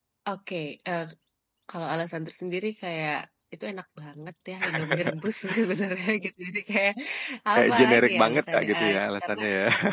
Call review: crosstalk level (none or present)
present